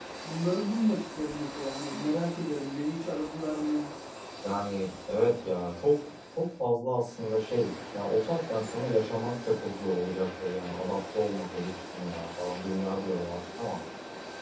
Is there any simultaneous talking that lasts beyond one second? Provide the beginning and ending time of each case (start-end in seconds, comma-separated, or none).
none